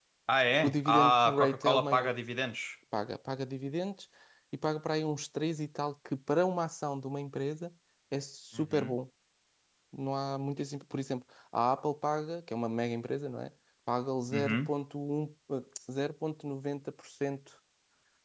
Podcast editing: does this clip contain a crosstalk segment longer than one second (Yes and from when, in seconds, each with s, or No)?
Yes, from 0.6 s